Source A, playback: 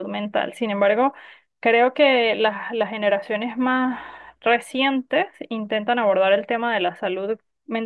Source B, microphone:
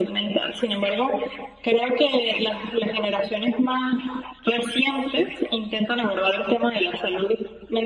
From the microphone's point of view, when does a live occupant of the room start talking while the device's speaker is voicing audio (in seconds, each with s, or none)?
none